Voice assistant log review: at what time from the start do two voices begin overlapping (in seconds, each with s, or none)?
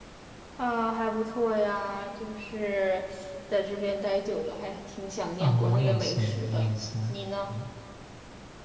5.4 s